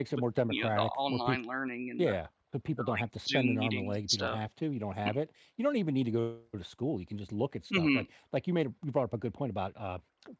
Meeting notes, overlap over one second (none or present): present